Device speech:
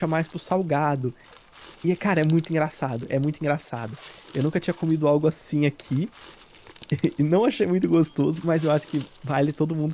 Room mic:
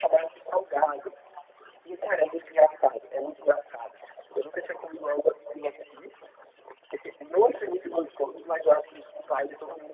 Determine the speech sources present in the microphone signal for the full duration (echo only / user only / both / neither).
echo only